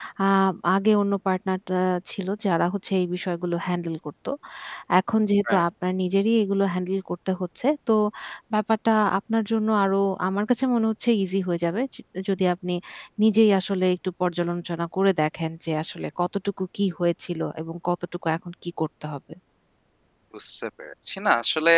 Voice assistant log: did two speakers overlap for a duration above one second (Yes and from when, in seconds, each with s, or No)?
No